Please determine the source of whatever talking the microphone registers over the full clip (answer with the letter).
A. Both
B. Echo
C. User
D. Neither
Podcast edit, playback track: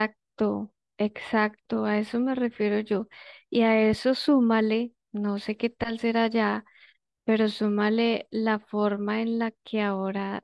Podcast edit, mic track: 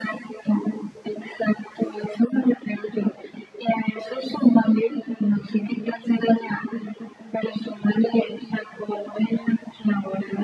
B